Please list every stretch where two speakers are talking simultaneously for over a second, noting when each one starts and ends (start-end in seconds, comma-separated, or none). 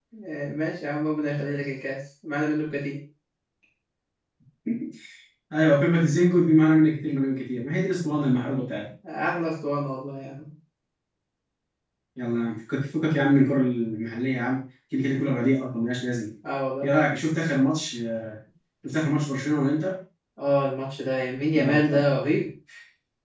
none